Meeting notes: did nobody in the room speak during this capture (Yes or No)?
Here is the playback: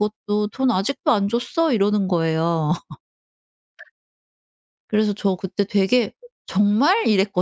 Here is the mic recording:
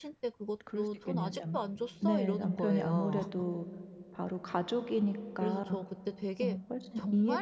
No